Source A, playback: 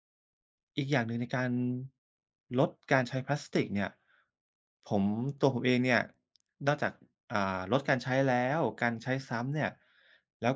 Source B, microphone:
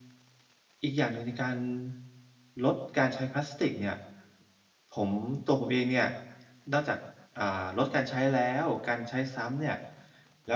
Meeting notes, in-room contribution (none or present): none